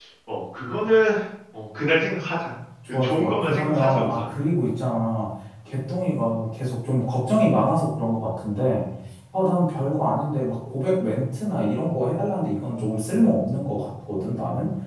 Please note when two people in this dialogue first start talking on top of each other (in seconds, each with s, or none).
3.0 s